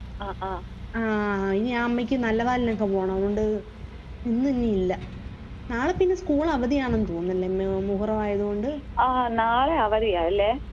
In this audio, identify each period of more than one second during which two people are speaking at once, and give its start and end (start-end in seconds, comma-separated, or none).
none